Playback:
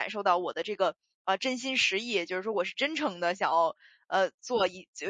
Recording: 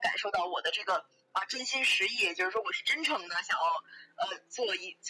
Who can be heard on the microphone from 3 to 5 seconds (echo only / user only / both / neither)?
echo only